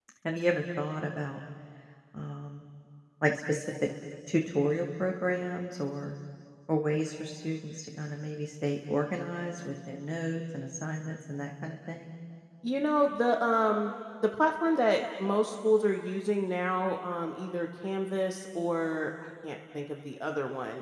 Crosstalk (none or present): none